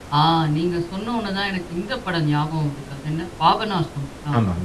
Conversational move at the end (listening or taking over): listening